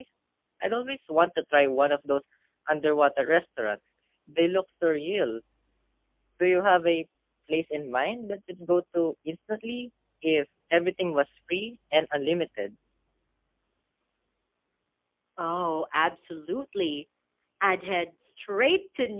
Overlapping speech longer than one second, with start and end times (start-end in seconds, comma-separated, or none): none